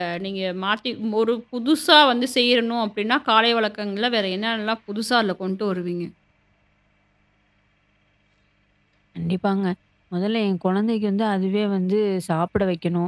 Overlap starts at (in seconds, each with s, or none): none